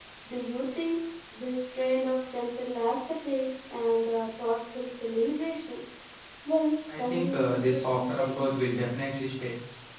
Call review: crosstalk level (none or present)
present